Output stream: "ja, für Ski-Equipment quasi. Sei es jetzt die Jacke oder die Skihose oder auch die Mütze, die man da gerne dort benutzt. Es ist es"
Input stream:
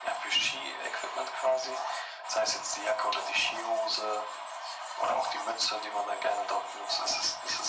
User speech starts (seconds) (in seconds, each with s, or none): none